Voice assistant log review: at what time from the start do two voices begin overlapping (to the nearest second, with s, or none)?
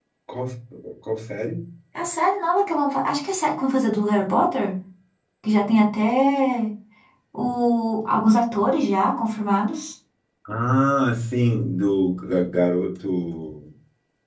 none